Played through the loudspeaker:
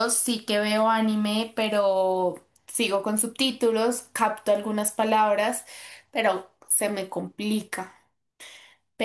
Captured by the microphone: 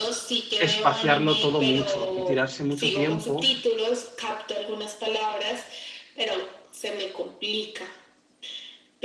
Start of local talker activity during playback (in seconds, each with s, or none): 0.6 s